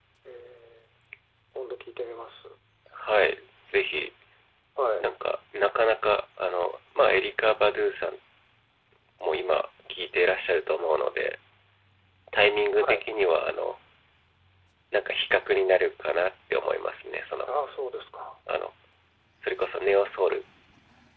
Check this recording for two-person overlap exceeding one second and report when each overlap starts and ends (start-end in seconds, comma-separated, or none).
none